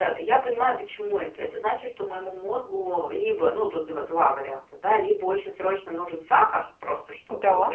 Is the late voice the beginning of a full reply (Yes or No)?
No